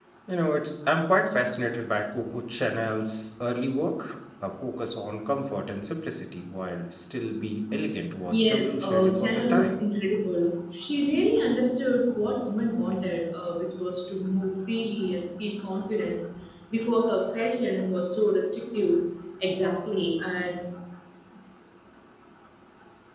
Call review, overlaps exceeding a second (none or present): present